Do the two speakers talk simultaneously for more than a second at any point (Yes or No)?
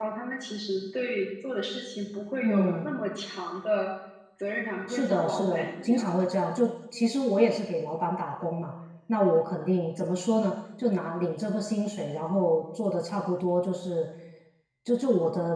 Yes